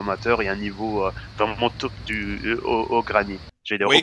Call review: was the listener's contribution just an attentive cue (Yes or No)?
No